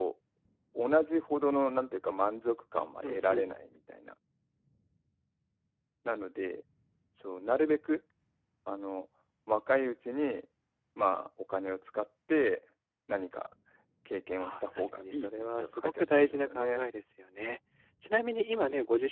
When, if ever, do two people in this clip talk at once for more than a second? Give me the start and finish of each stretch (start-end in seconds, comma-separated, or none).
14.4-16.8